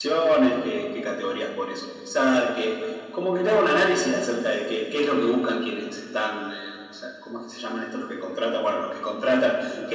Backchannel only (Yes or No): Yes